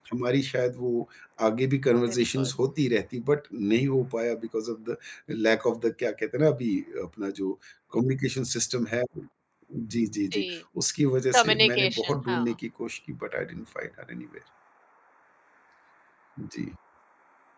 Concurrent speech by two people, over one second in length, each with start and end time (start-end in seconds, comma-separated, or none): 11.3-12.5